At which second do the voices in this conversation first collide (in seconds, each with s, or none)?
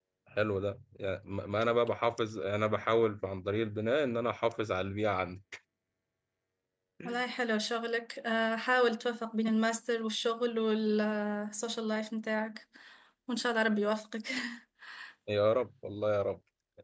none